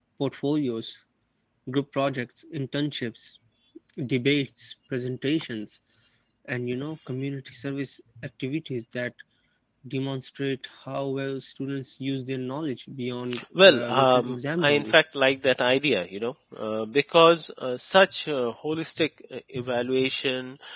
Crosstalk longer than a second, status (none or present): present